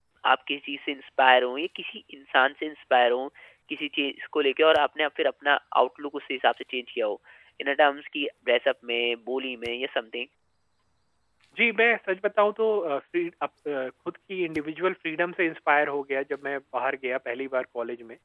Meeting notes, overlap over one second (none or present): none